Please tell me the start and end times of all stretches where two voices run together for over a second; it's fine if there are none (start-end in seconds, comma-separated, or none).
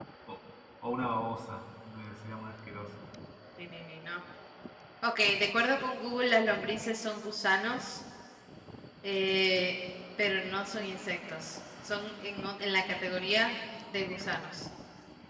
none